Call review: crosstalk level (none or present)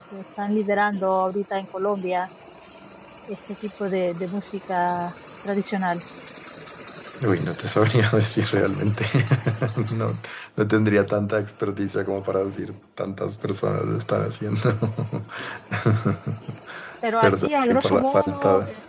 present